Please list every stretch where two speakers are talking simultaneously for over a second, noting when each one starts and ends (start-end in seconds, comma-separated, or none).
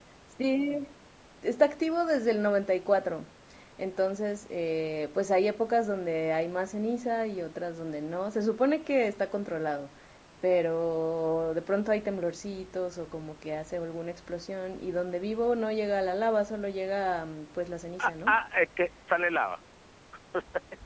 none